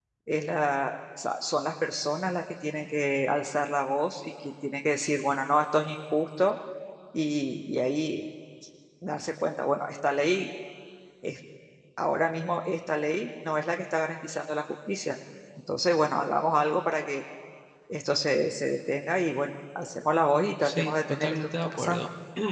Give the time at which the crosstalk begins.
20.6 s

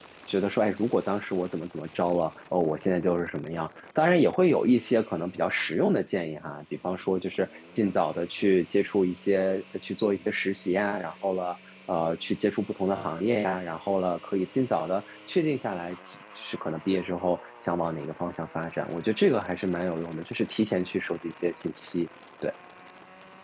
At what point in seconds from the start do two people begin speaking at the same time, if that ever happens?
none

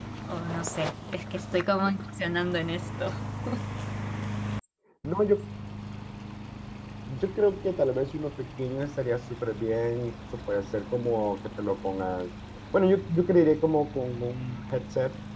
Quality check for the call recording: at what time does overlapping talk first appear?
none

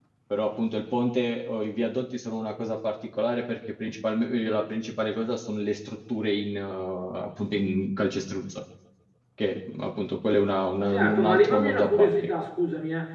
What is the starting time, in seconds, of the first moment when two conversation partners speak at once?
10.9 s

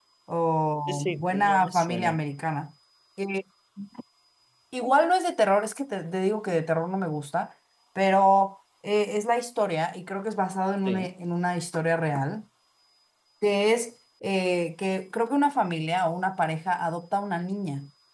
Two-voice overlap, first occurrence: 0.9 s

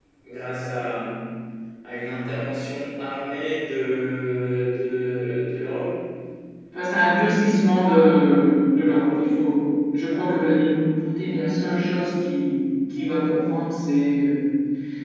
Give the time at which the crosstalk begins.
none

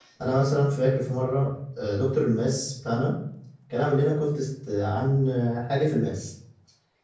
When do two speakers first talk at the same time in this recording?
none

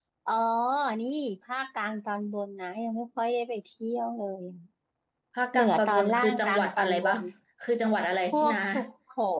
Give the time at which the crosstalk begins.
5.5 s

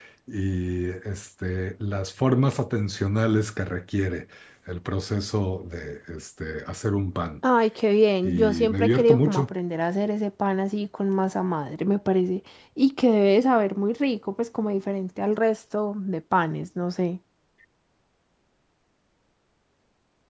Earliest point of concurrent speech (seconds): 8.2 s

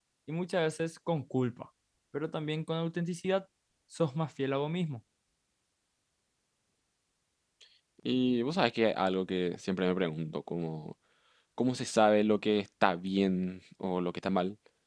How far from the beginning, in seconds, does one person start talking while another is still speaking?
none

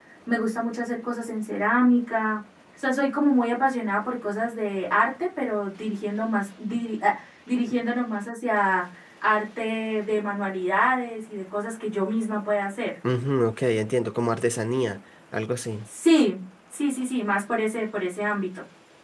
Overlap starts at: none

